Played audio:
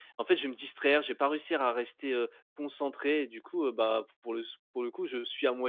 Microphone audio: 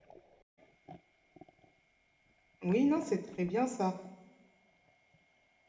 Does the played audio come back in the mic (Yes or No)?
No